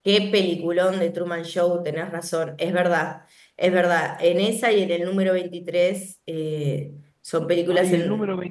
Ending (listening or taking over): taking over